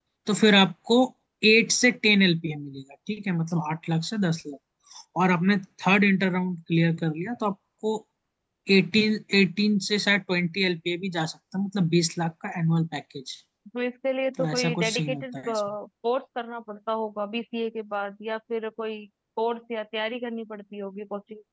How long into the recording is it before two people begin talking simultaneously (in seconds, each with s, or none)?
14.4 s